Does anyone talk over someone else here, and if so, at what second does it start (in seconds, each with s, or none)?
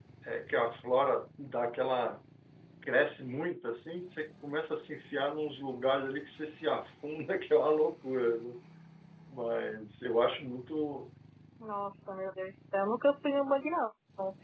none